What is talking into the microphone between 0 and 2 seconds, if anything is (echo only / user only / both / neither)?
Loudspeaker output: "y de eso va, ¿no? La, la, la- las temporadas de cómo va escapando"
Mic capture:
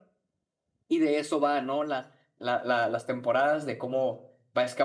echo only